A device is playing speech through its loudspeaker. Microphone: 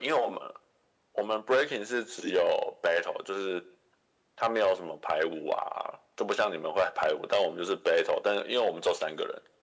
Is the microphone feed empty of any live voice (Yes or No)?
Yes